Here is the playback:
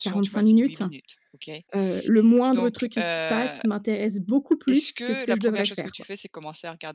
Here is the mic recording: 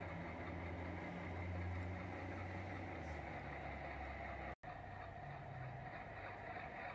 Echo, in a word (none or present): none